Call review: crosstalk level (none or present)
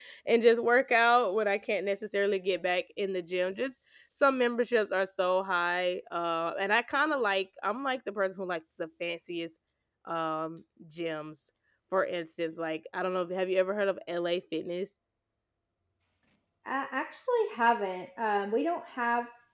none